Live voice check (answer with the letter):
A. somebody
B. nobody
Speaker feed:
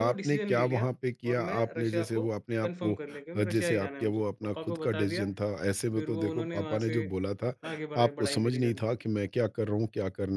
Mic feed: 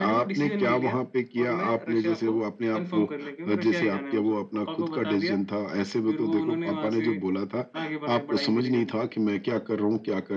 B